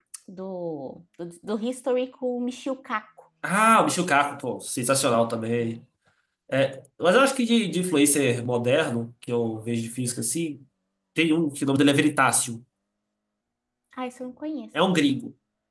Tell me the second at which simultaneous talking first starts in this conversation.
none

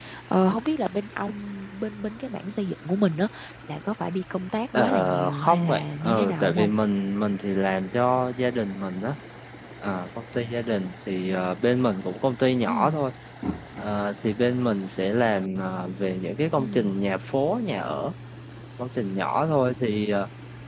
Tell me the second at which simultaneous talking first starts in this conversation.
4.7 s

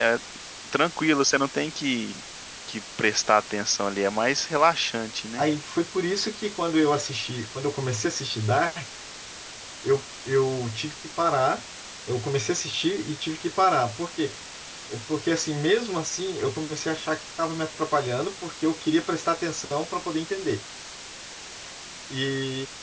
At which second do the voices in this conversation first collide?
none

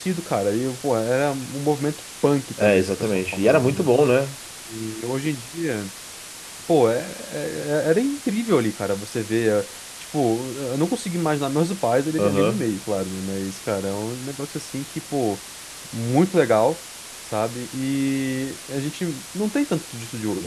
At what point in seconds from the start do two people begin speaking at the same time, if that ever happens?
2.6 s

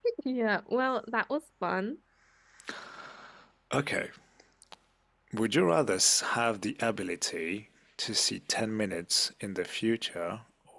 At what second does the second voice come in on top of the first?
none

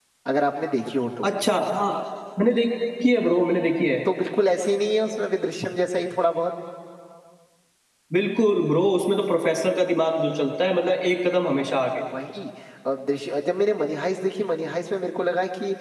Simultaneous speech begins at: none

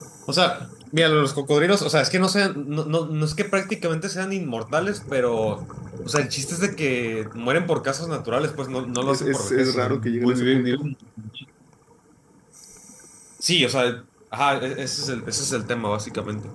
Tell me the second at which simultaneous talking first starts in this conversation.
9.1 s

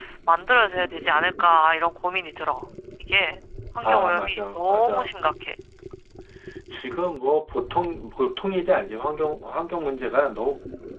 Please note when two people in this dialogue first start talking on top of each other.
3.8 s

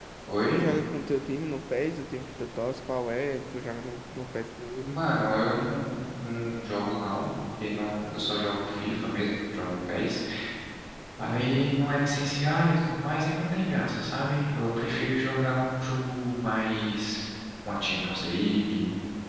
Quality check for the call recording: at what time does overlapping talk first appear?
none

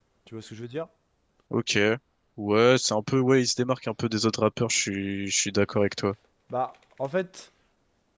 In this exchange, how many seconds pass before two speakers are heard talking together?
none

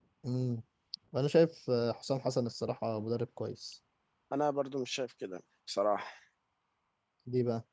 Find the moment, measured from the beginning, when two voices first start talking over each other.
none

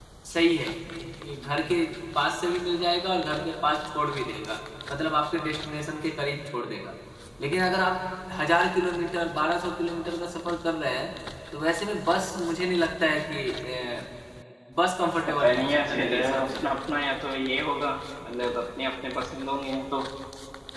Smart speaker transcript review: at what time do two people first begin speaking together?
15.3 s

